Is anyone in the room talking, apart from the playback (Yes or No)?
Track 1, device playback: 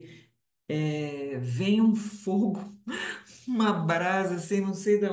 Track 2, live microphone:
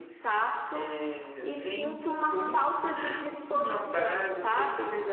Yes